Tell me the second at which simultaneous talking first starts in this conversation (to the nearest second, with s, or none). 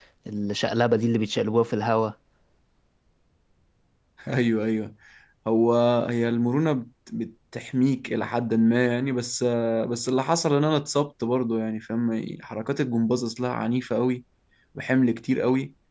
none